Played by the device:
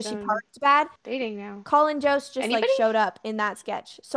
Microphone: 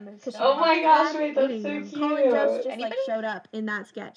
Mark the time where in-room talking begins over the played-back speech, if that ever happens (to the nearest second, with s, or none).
0 s